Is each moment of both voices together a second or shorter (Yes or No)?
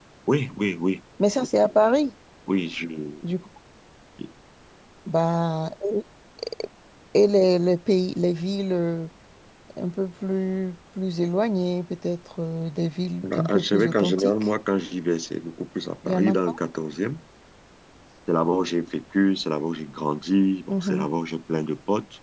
No